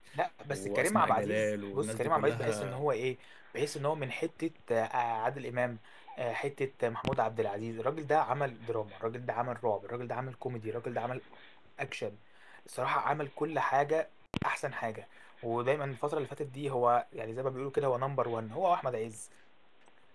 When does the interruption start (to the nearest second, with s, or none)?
1 s